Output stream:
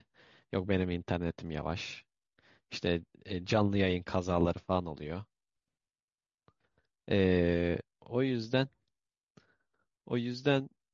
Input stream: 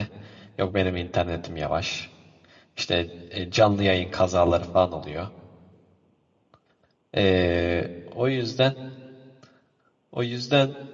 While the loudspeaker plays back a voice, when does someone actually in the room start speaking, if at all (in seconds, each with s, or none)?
none